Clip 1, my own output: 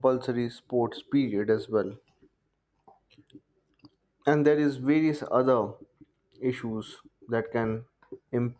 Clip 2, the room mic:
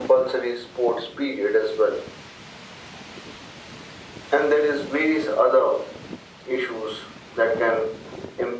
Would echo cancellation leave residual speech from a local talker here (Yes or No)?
No